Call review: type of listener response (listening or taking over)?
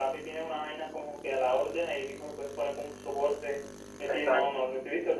listening